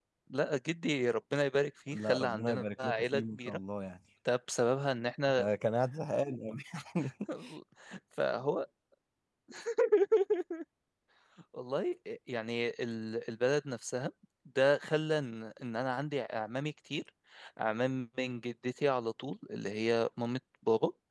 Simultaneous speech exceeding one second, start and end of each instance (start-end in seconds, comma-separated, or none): 1.9-3.6